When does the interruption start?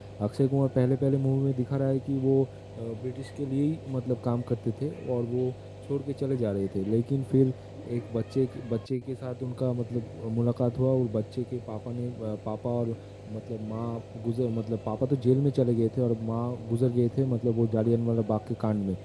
none

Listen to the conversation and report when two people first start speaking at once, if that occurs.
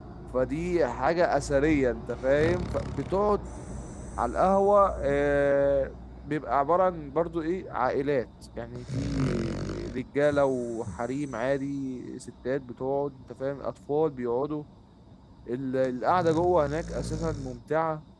none

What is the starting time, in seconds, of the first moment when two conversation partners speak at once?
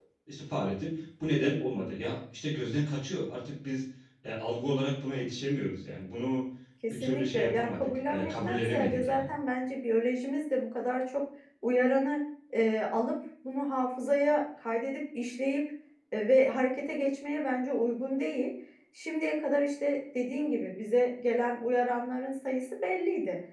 6.9 s

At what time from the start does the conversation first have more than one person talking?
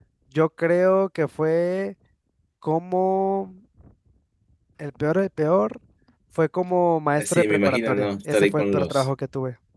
7.2 s

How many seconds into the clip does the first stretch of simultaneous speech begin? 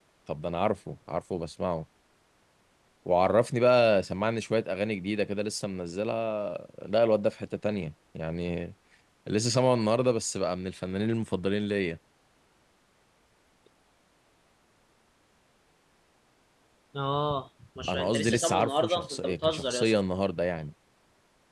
17.9 s

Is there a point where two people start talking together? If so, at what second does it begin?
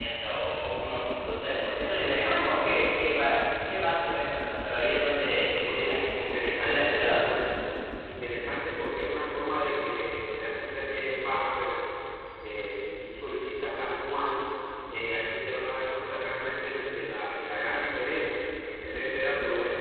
5.8 s

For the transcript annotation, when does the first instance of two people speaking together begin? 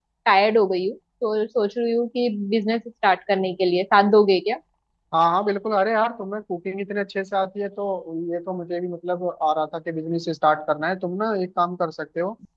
none

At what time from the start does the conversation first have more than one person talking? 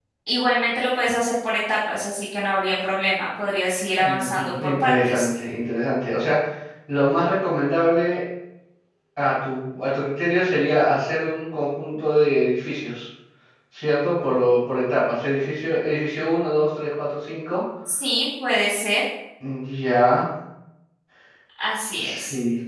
4.0 s

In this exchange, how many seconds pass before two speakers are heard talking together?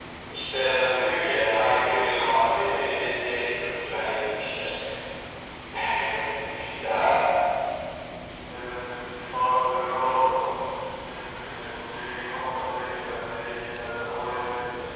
none

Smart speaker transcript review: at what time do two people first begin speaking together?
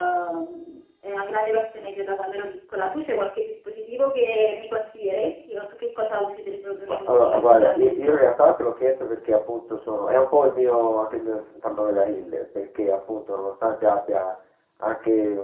6.9 s

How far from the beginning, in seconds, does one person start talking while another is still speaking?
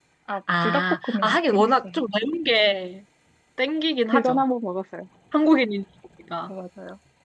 0.6 s

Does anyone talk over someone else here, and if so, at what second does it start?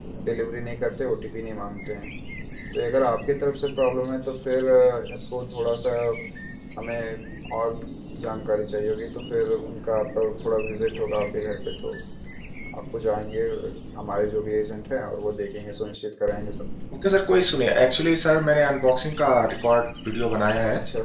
none

